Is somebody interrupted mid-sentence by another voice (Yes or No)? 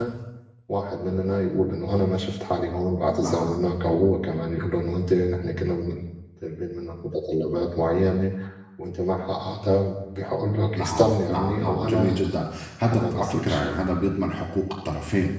Yes